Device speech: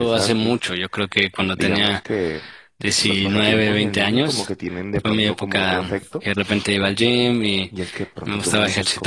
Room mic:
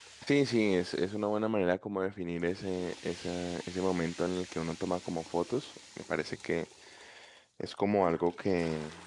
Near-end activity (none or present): present